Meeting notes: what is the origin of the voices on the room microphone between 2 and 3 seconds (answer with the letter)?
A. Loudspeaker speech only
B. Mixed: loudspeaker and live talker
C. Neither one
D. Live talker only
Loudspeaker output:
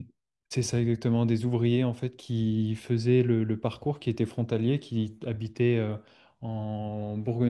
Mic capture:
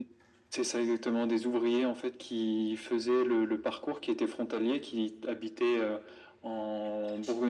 A